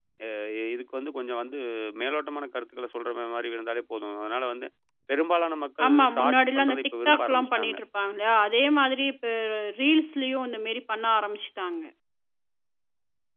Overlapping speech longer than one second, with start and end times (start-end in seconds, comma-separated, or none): 5.9-7.8